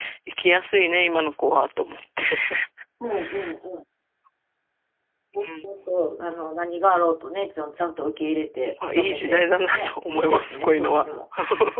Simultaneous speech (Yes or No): Yes